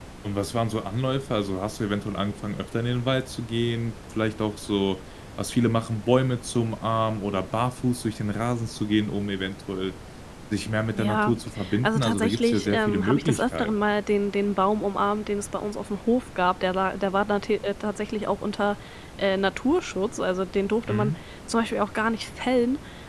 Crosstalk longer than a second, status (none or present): present